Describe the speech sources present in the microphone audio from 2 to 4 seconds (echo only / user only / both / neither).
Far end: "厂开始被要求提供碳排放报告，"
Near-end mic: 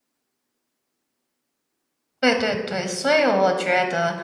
user only